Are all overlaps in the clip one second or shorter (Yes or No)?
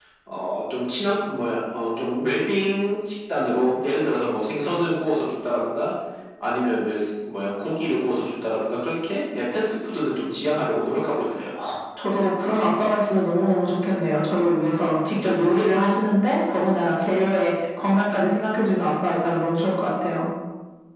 Yes